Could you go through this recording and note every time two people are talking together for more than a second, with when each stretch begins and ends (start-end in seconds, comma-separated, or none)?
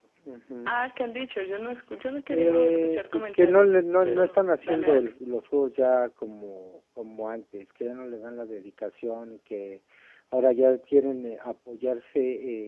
2.3-5.1